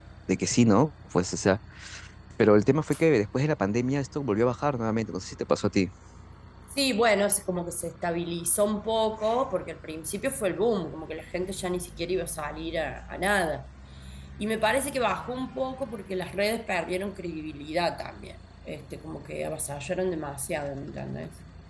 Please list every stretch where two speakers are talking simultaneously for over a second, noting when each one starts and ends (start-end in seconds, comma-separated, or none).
none